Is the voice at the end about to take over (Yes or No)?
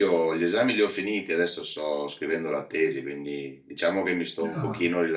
No